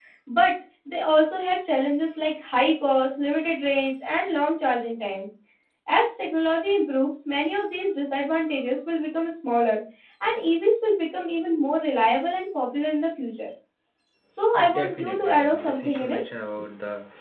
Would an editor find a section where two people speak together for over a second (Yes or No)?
Yes